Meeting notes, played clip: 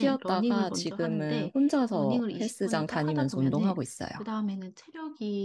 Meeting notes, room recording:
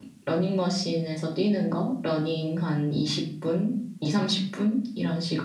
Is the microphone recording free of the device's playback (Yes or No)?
Yes